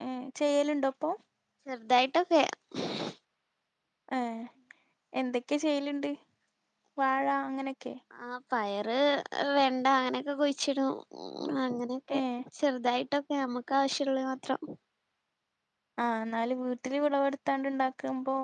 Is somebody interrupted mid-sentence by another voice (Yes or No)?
No